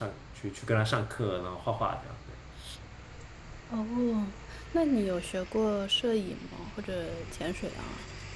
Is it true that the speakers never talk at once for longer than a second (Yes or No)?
Yes